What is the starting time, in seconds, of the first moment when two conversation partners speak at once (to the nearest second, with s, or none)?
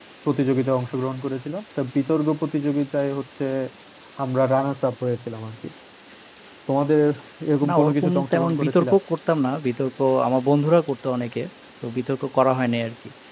8 s